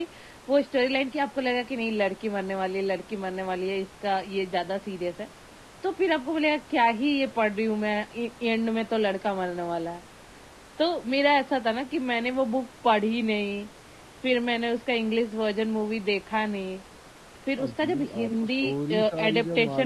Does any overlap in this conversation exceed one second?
Yes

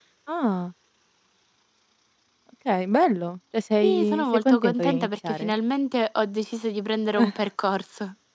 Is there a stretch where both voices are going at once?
Yes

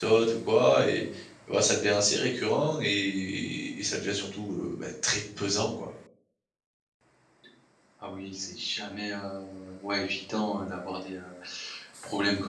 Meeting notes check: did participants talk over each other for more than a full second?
No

